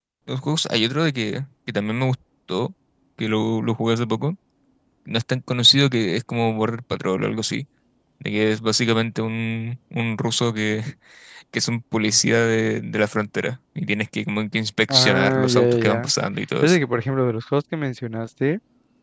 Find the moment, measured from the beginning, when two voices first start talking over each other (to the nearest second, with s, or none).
15 s